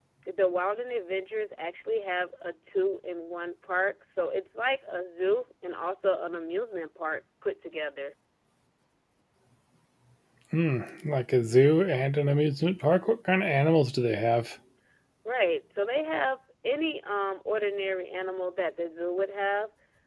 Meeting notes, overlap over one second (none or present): none